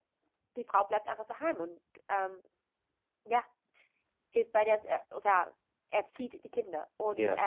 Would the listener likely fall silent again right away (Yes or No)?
Yes